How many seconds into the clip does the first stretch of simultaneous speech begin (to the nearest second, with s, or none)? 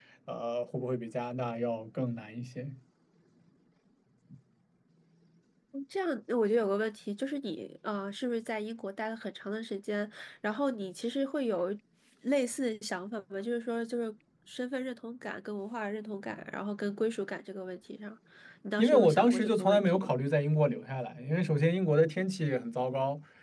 19 s